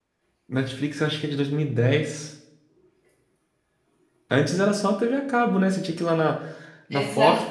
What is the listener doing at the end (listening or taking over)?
listening